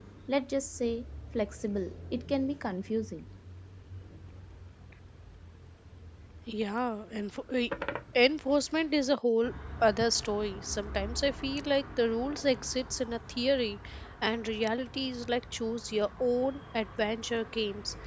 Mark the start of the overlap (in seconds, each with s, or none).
none